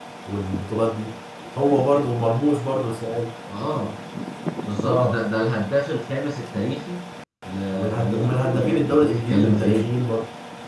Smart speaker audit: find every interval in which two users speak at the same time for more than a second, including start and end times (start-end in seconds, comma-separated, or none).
7.7-9.9